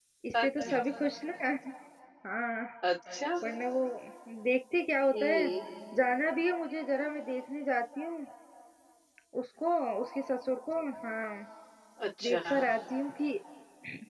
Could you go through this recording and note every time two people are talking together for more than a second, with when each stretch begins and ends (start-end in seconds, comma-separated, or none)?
none